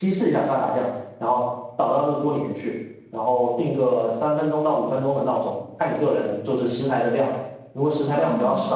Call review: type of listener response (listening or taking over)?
listening